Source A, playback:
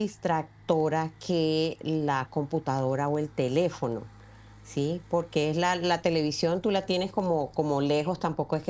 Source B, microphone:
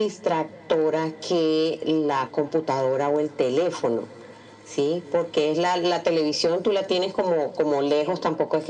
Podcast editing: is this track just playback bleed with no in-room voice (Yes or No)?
Yes